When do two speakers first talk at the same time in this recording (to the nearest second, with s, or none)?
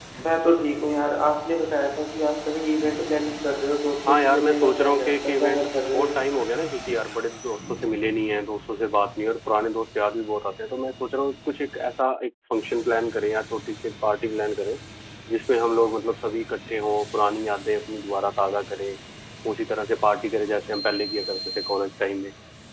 4 s